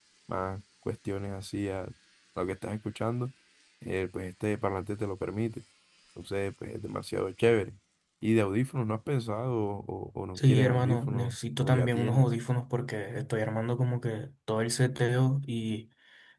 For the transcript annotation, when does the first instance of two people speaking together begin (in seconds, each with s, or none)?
10.4 s